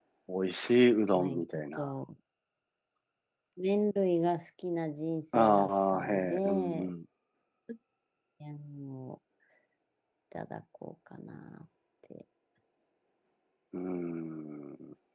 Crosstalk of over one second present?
Yes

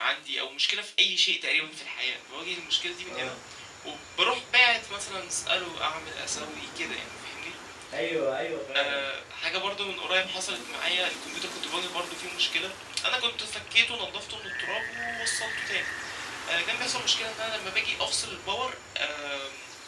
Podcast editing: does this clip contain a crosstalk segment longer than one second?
No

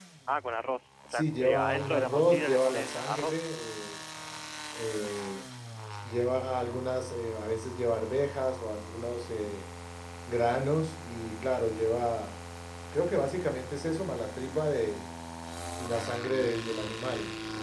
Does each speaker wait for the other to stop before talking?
No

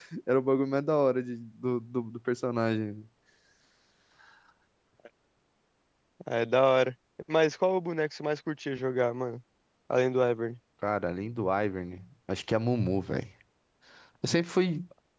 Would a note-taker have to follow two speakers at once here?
No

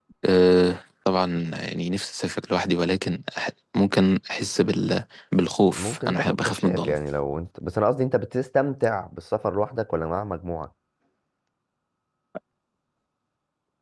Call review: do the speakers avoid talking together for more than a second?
No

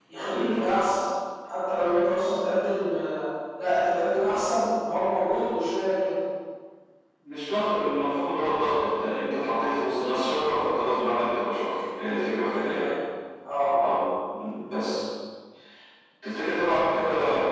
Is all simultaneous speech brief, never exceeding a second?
Yes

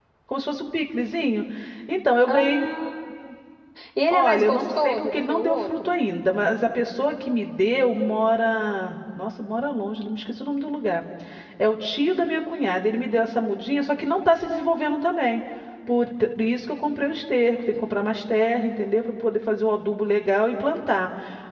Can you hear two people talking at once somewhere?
Yes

